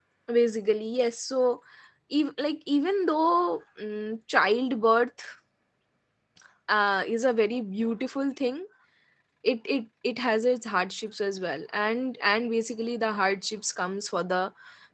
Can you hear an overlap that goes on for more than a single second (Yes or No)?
No